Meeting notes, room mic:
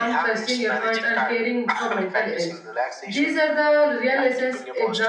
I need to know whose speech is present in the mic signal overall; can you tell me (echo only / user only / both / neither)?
both